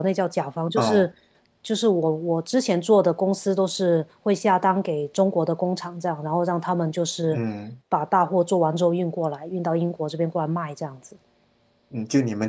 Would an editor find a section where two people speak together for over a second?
No

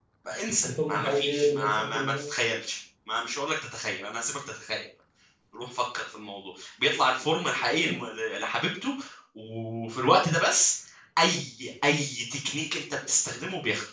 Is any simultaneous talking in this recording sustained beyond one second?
Yes, from 0.6 s

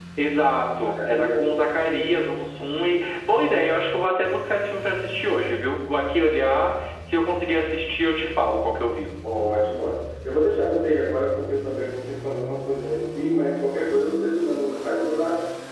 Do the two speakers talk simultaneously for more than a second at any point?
Yes, from 0.8 s

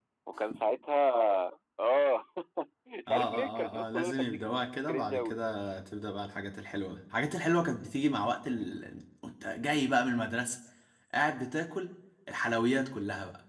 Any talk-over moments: Yes, from 3.1 s

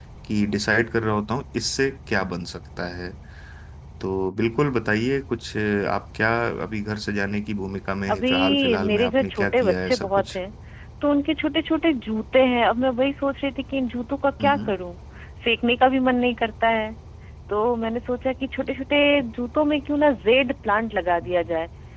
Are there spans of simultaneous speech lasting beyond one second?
Yes, from 8.1 s

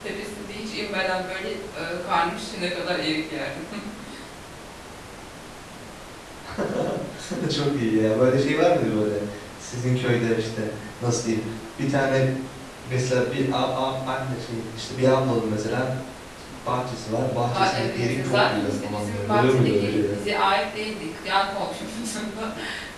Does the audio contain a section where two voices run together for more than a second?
Yes, from 17.5 s

